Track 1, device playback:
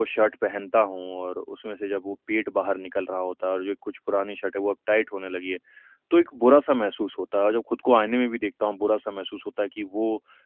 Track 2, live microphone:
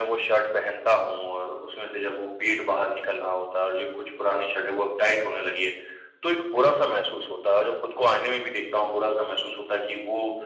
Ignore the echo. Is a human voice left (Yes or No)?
No